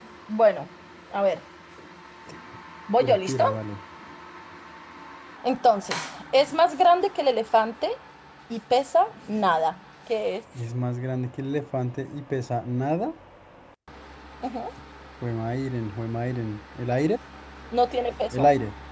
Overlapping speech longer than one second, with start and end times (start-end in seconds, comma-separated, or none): none